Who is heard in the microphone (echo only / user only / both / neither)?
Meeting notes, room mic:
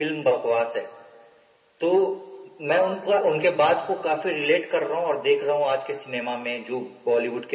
both